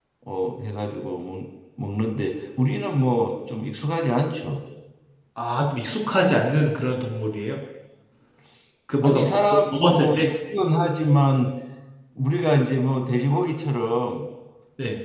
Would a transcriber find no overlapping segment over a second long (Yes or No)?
No